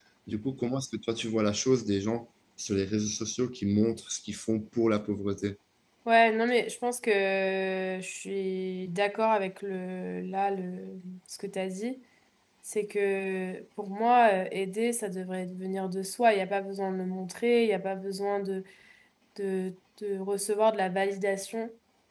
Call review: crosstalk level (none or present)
none